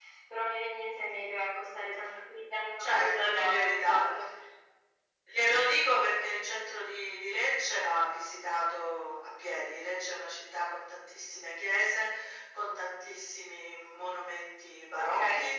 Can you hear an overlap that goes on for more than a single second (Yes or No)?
Yes